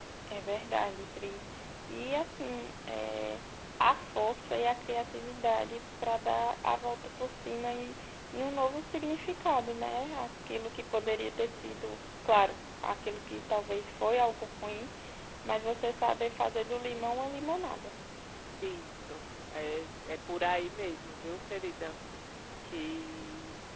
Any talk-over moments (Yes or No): No